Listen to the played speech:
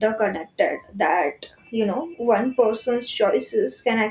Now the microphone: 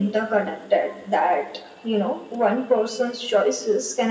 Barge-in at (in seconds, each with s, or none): none